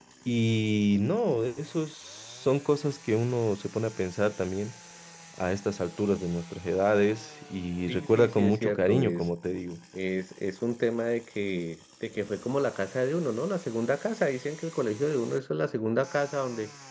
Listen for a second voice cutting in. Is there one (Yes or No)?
Yes